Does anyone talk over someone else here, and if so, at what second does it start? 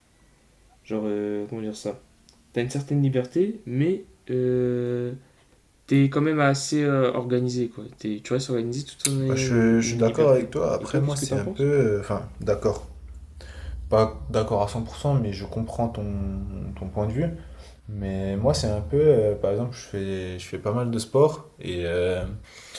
9.0 s

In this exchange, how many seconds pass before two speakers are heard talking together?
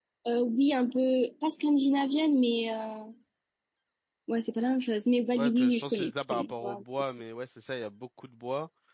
5.3 s

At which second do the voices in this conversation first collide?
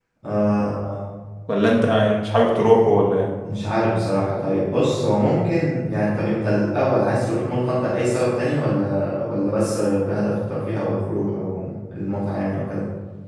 none

